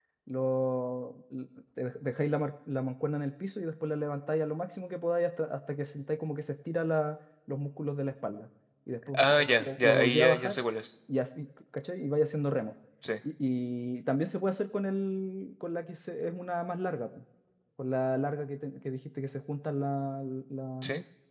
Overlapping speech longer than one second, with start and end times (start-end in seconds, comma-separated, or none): 9.1-10.6